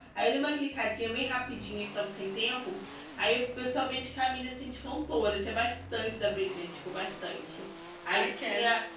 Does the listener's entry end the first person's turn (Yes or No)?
No